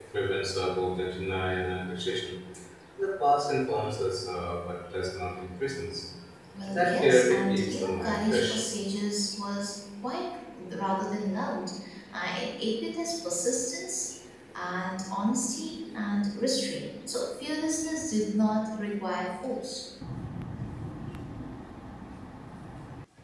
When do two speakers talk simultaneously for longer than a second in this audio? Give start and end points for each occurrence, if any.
6.7-8.6

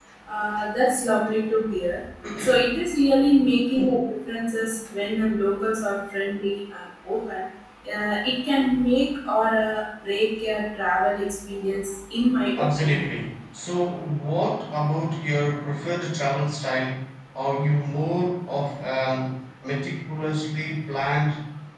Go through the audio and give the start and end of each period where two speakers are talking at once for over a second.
none

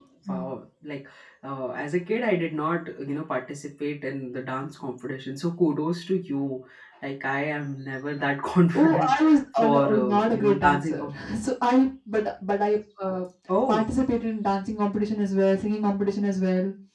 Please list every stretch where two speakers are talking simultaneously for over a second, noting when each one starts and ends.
8.8-11.1

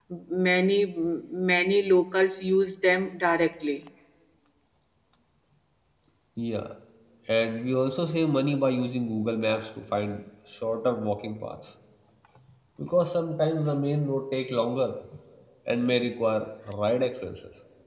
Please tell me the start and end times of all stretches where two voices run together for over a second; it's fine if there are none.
none

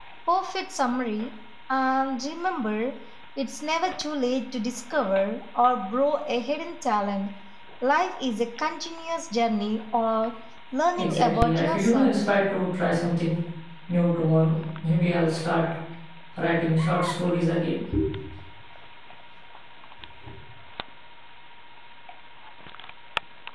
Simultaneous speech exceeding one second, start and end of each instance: 11.0-12.2

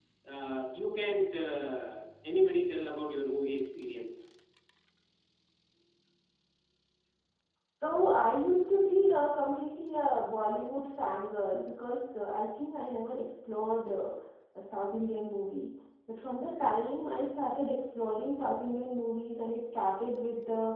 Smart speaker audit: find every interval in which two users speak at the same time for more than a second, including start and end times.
none

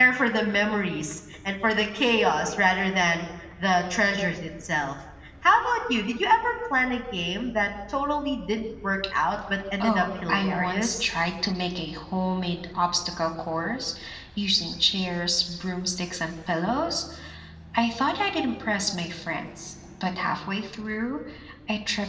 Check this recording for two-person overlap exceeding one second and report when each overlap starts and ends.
9.8-11.0

